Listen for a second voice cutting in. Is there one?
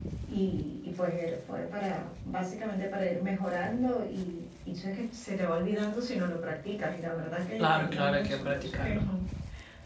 Yes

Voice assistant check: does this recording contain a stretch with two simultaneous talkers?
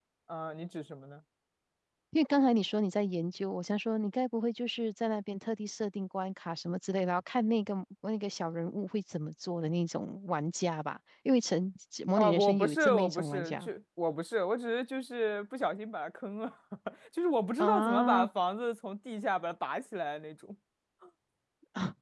Yes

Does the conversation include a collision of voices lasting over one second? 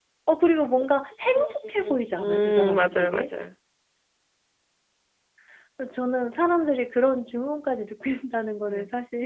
Yes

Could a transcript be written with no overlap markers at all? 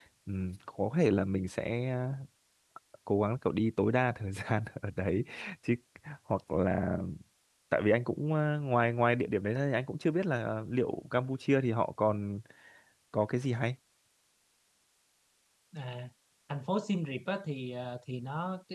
Yes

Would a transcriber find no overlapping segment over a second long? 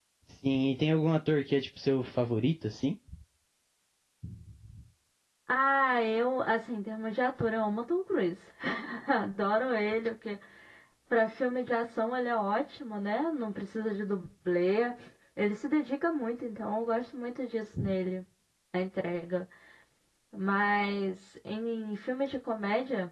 Yes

